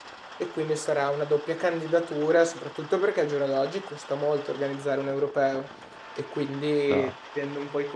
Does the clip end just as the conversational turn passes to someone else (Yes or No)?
No